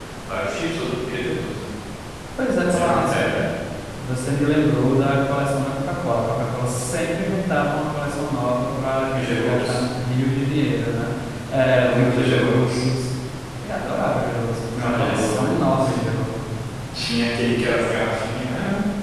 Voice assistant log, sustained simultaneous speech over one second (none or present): present